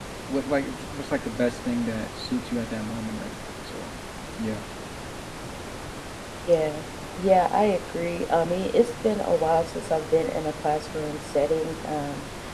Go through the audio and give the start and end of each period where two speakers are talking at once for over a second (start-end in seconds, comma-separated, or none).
none